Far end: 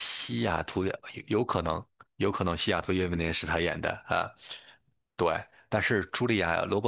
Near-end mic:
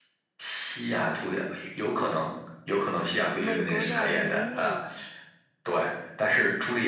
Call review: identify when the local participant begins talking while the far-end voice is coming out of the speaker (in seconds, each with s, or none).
3.4 s